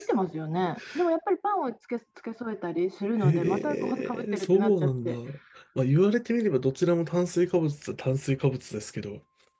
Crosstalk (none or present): present